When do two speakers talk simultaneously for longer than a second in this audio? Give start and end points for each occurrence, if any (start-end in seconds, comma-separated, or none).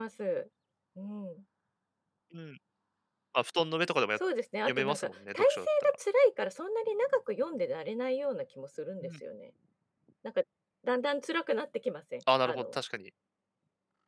4.7-6.0